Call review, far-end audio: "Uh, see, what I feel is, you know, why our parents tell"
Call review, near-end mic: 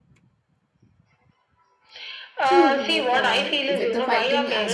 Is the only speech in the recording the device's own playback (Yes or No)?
No